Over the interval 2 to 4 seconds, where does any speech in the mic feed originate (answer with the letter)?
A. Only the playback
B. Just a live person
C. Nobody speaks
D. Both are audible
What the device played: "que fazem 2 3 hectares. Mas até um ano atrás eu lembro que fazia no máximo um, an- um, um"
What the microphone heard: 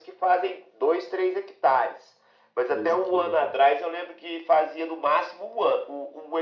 D